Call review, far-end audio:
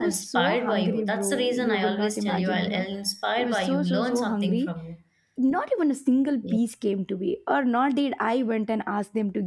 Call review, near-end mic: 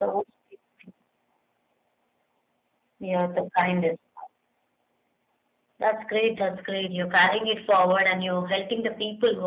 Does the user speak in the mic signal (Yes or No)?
Yes